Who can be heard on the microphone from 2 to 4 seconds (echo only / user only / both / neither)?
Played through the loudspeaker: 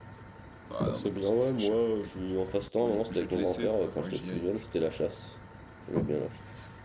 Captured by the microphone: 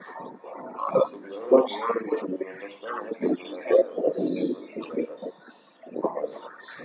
echo only